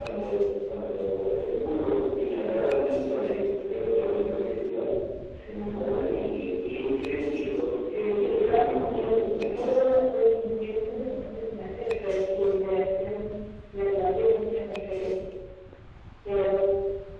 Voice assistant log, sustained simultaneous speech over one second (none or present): present